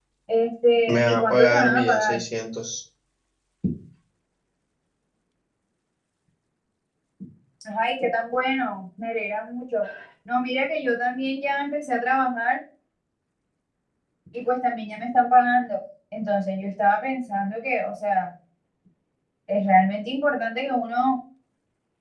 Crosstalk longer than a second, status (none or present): present